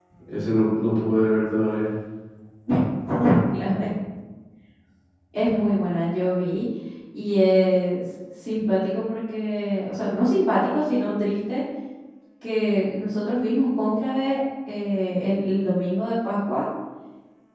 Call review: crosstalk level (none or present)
none